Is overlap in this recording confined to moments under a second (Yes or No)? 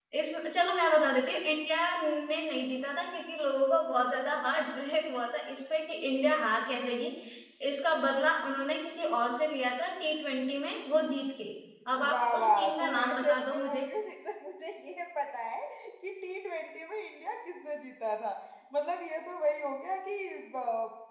No